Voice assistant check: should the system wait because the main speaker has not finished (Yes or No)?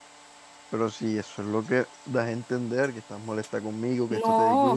No